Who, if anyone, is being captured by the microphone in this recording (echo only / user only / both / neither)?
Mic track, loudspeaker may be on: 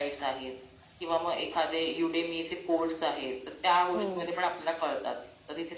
both